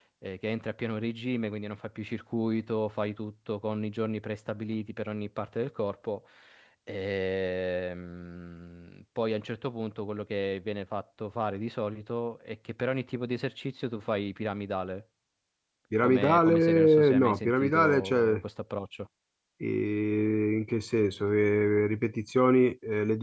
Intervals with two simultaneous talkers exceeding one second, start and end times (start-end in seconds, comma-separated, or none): 16.0-18.4